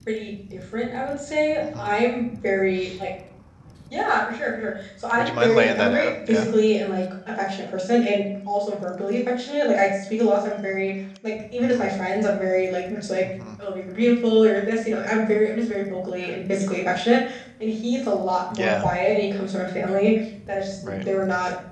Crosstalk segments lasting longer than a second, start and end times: 5.1-6.5

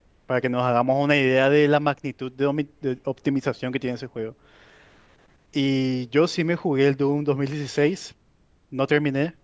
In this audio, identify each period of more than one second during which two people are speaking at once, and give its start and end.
none

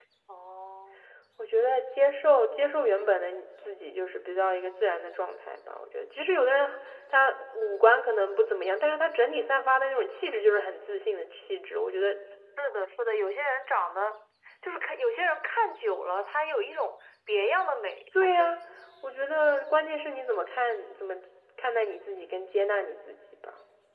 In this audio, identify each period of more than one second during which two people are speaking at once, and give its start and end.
none

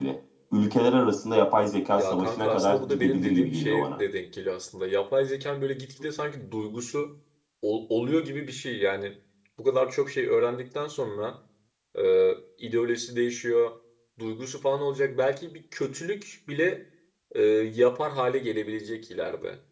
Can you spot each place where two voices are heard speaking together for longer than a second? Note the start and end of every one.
2.0-4.0

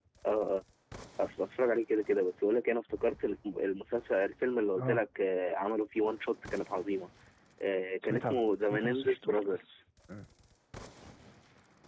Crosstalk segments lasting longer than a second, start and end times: 8.0-9.6

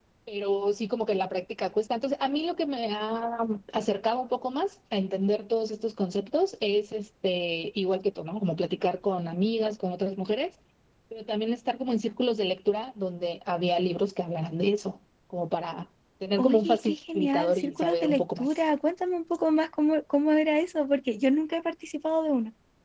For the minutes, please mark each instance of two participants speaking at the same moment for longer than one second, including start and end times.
16.4-18.5

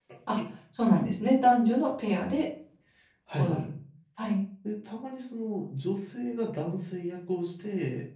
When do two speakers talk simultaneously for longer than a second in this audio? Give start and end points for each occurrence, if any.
none

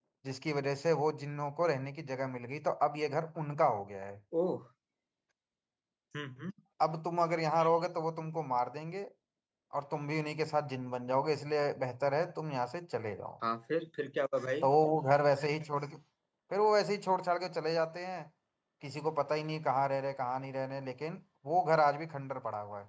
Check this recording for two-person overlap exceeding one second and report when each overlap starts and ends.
none

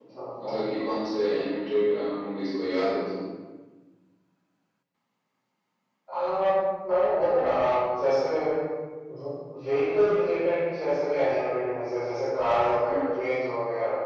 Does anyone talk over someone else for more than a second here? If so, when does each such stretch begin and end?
none

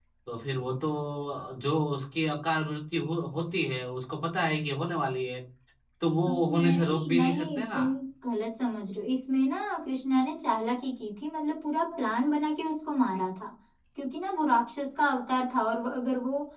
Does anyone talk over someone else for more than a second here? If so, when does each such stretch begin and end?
6.2-7.8

